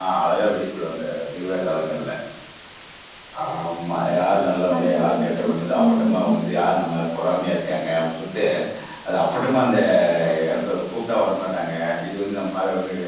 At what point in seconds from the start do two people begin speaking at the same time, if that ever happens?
4.7 s

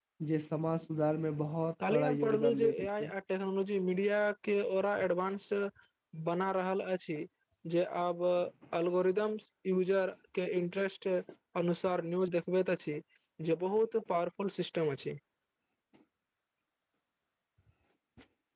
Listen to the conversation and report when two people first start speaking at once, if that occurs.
1.8 s

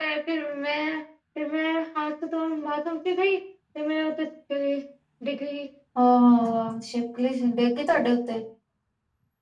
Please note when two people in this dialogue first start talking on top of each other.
none

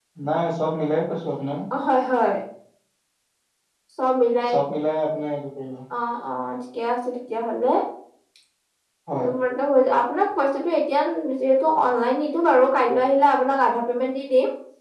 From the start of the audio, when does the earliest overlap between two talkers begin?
none

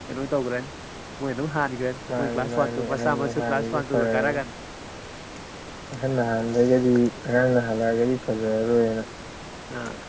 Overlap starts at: 2.1 s

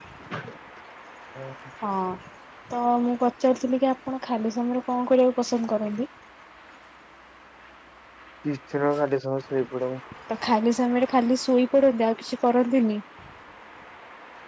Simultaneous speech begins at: none

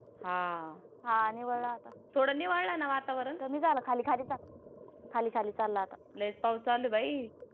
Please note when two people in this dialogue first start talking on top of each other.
none

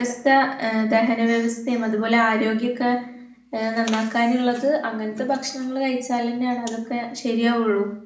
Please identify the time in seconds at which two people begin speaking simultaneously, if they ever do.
none

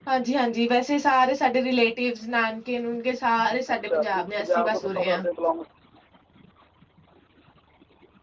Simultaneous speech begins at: 3.7 s

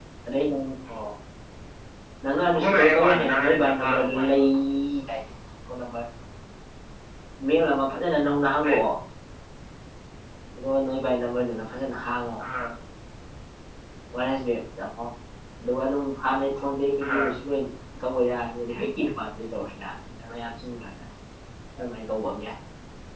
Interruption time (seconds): 2.7 s

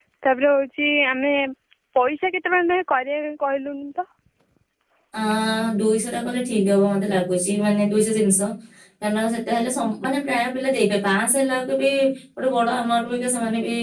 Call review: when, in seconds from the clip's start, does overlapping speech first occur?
none

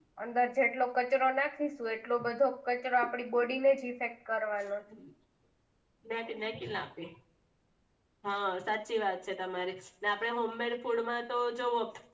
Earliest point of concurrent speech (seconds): none

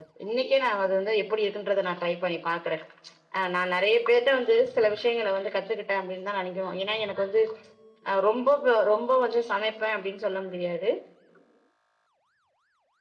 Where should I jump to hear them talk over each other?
none

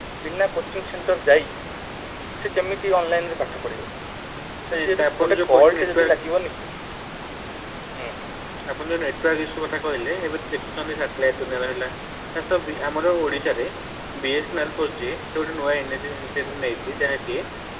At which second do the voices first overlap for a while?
4.7 s

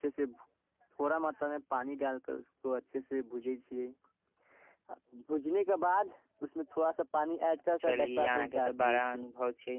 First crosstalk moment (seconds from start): 7.8 s

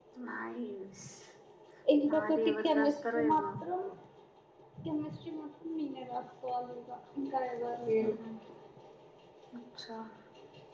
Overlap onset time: 2.1 s

